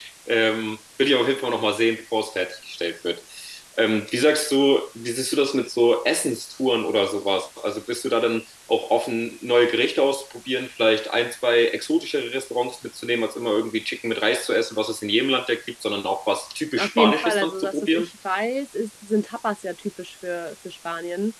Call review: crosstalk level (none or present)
present